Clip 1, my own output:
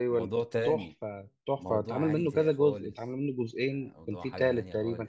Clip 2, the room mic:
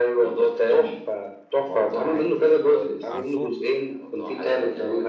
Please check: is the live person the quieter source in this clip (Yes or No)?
Yes